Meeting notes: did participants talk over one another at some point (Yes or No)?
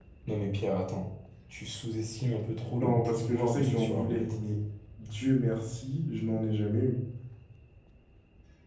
Yes